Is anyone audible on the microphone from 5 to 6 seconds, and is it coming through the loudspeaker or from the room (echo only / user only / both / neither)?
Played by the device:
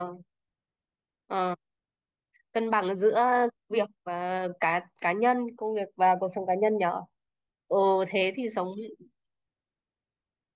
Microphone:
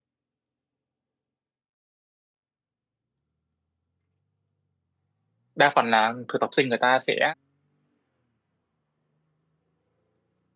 user only